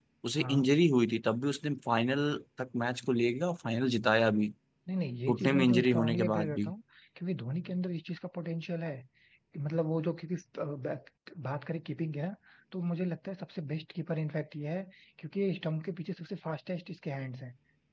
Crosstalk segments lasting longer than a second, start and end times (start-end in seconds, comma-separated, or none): 5.3-6.7